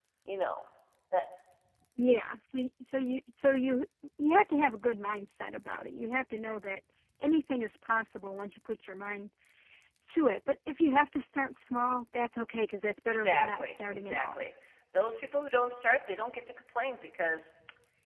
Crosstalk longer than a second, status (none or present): present